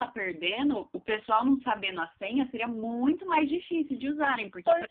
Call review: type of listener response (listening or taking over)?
taking over